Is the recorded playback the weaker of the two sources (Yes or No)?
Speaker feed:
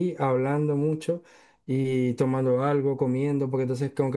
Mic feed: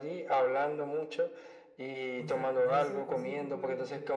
No